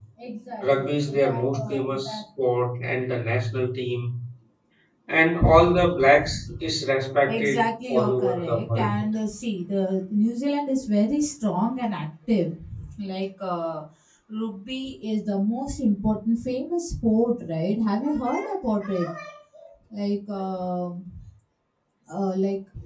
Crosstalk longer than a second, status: present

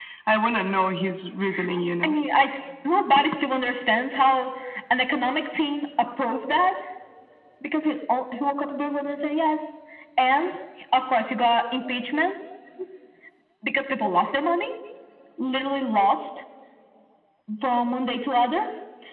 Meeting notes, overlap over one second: none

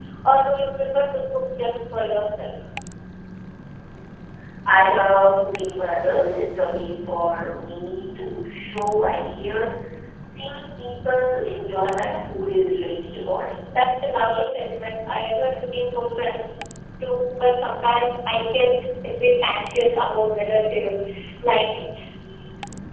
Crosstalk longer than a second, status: none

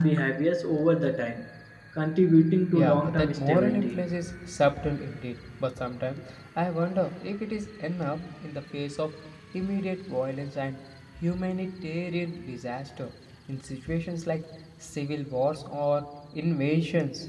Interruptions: present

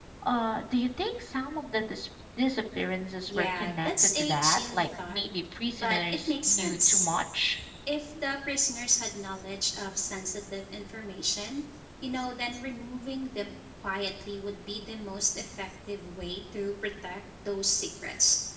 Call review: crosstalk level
present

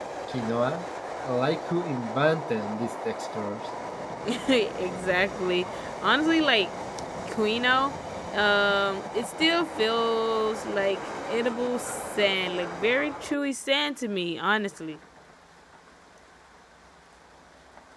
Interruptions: none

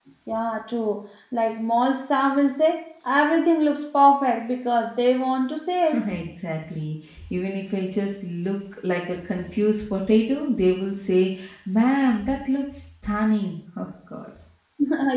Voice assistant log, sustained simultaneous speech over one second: none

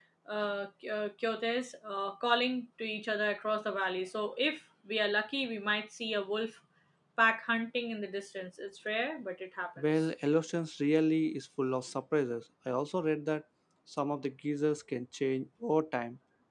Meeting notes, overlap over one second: none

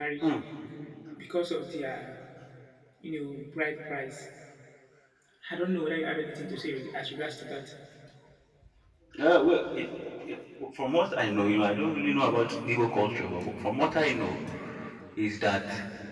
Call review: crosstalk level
none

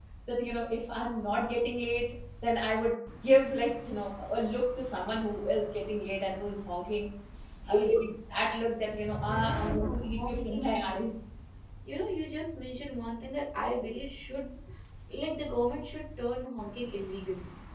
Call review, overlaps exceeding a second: present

